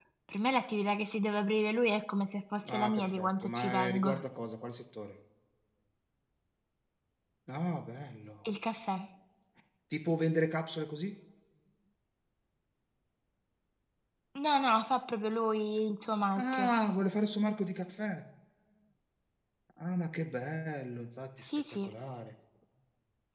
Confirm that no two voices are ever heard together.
No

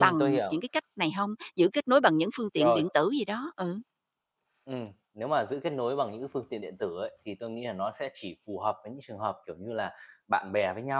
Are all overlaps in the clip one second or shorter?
Yes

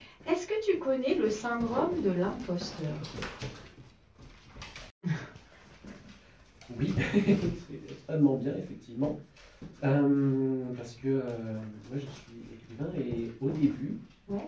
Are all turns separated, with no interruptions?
Yes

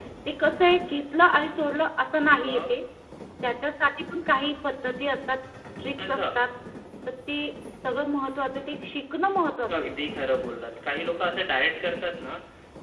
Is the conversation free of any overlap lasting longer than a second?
Yes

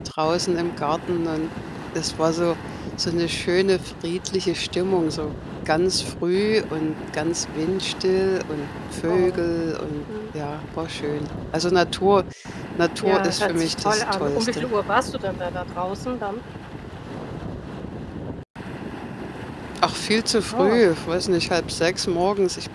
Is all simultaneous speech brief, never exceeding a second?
No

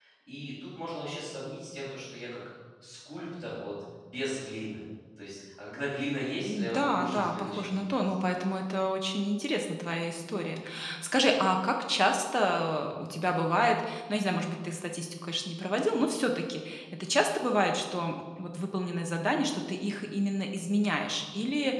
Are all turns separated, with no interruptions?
No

